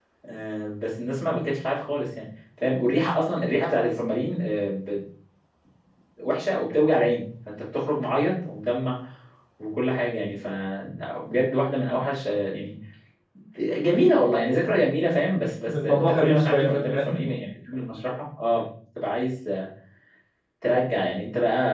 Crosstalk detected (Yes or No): Yes